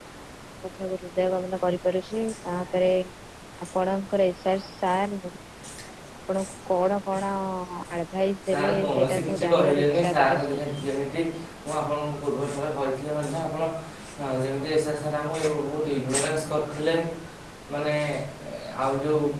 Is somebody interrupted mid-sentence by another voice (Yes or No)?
Yes